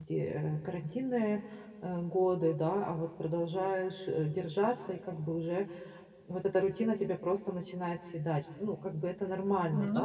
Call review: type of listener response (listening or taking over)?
listening